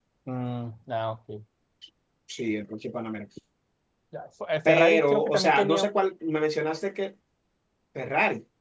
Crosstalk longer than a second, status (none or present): present